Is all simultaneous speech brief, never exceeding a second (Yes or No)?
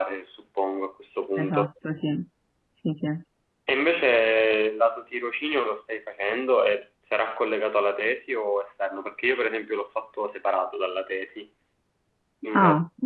Yes